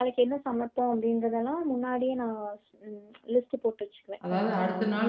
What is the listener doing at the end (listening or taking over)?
taking over